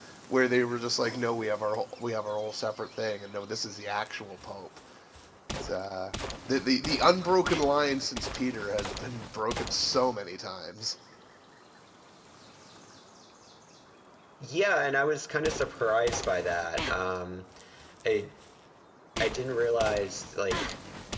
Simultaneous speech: No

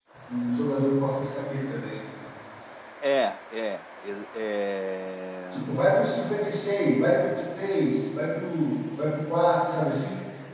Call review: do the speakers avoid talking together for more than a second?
Yes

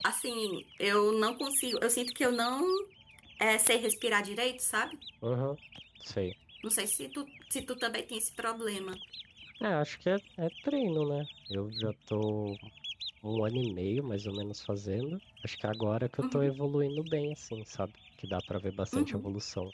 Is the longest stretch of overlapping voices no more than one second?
Yes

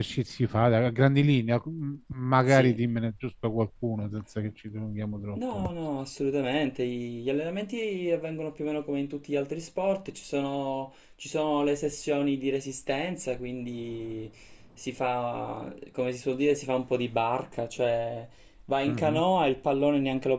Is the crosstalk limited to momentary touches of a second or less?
Yes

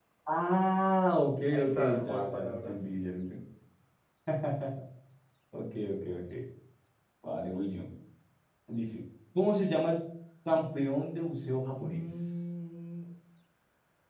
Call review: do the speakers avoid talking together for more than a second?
No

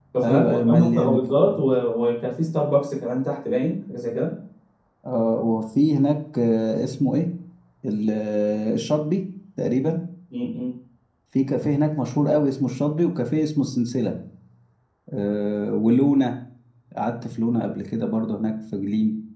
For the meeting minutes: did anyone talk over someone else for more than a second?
Yes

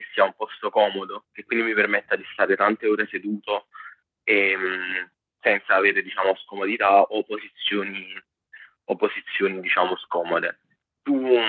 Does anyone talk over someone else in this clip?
No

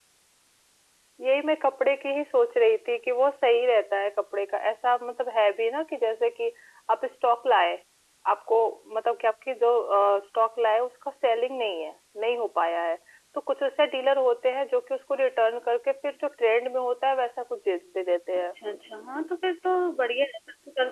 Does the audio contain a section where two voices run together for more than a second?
No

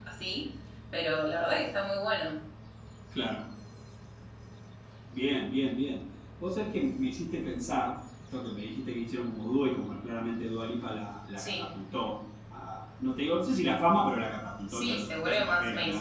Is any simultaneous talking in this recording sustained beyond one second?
Yes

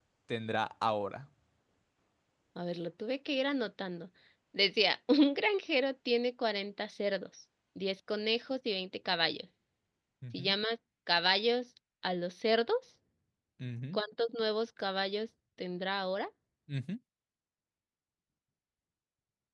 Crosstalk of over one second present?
No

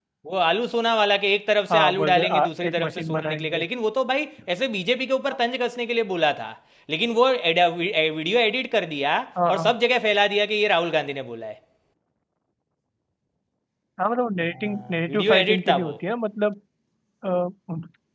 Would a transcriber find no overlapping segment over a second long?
No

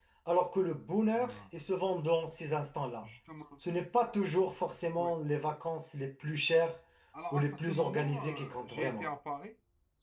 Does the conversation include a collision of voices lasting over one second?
Yes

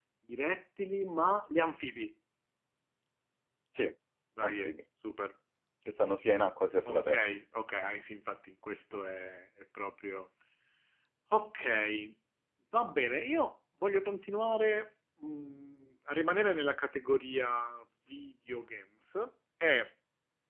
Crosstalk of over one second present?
No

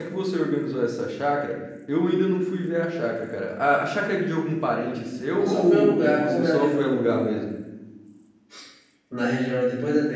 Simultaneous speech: Yes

